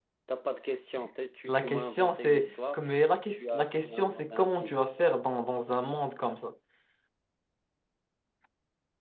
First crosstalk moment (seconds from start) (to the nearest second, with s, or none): 1 s